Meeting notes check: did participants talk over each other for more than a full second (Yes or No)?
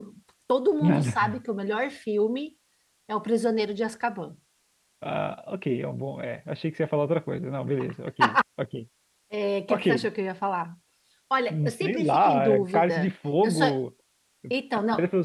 Yes